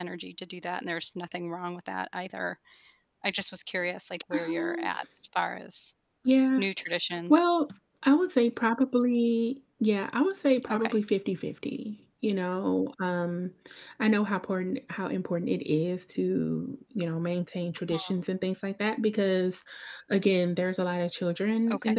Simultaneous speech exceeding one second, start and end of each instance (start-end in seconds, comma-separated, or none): none